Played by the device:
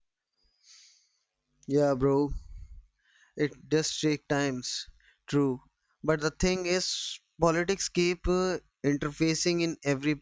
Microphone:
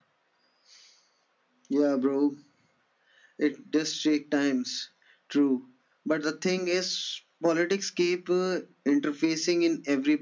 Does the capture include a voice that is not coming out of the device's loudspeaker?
No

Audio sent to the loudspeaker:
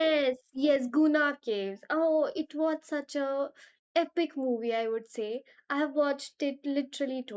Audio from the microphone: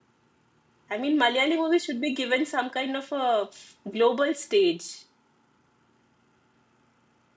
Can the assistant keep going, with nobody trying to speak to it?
No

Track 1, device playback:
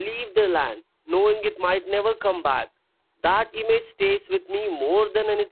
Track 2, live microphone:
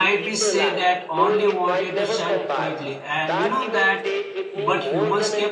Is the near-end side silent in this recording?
No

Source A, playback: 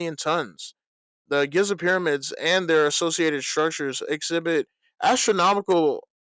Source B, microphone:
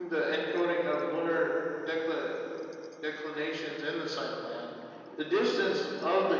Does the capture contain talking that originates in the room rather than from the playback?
Yes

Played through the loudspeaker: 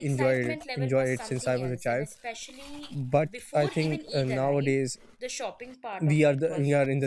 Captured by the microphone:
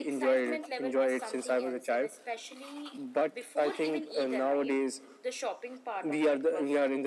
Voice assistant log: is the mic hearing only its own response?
Yes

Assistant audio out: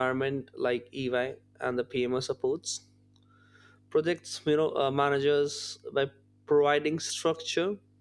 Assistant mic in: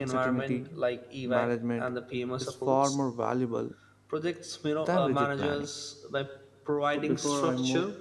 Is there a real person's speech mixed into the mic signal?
Yes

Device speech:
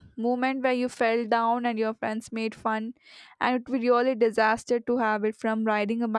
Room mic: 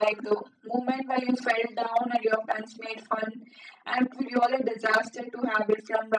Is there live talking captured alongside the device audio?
No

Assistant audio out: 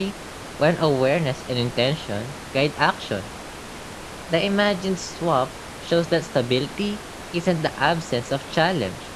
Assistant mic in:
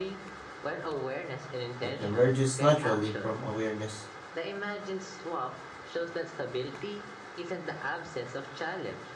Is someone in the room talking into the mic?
Yes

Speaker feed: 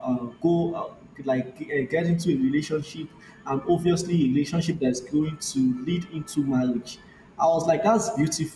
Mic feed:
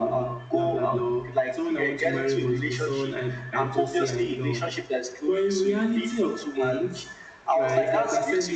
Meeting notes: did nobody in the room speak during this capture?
No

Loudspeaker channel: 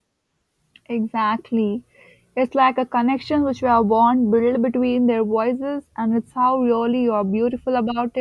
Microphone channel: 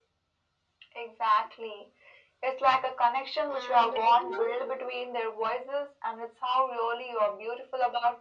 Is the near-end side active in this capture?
Yes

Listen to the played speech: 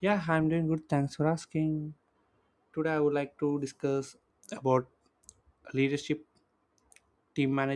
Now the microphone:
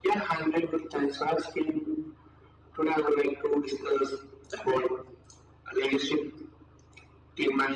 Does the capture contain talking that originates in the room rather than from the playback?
No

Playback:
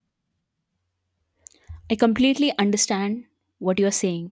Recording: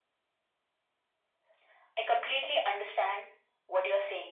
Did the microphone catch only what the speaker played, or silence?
Yes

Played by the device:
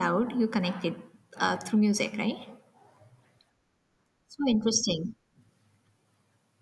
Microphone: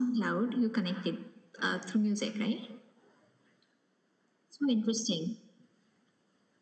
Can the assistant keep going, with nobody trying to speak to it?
Yes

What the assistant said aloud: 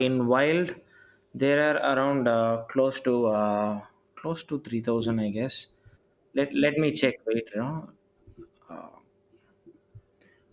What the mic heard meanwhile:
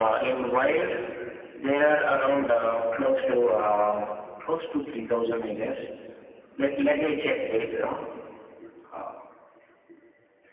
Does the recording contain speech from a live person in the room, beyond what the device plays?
No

